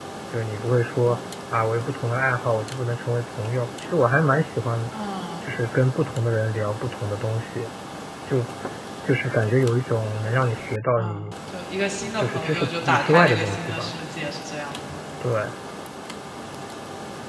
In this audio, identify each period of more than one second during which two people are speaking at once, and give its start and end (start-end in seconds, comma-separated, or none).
12.2-13.9